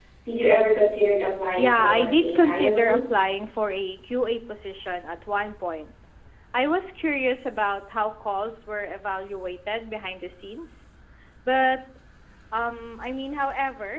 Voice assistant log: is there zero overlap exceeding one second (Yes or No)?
No